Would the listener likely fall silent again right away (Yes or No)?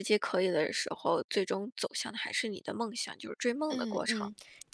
No